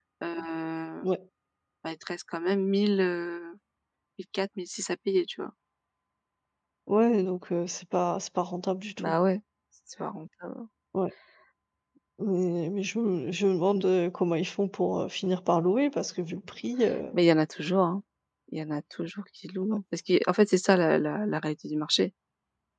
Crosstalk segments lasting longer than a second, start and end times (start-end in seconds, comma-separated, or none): none